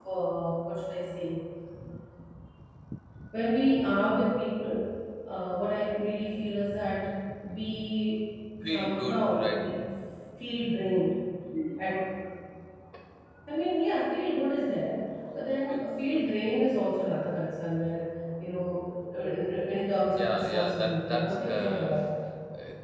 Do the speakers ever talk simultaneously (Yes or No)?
Yes